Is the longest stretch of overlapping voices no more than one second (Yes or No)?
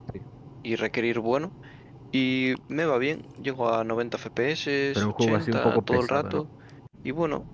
No